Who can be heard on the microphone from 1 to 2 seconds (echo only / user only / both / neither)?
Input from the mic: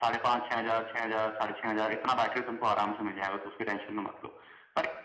echo only